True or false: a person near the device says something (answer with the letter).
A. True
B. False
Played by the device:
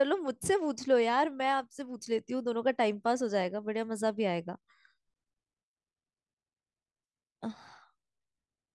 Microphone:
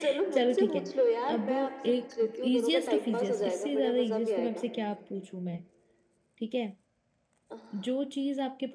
A